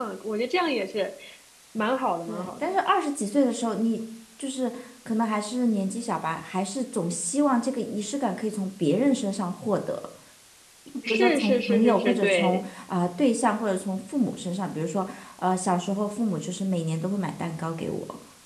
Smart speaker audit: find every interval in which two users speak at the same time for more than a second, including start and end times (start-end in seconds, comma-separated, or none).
11.0-12.6